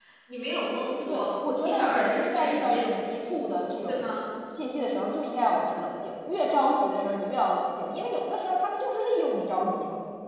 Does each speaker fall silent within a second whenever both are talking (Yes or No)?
No